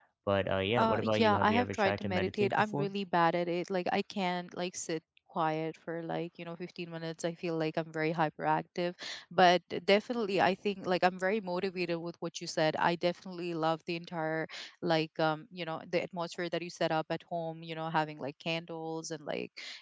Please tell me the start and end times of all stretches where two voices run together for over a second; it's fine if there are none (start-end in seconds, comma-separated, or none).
0.8-2.9